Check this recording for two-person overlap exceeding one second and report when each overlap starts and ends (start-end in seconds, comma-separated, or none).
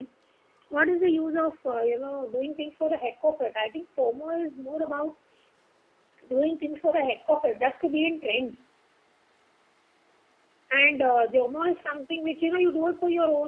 none